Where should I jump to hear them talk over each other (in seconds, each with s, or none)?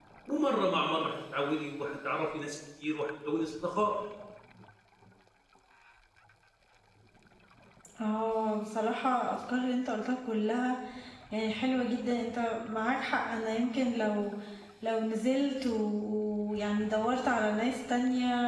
none